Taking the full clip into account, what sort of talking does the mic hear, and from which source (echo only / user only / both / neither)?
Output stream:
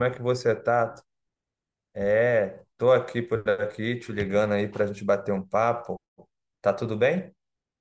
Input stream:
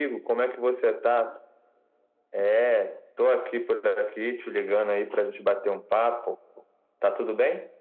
echo only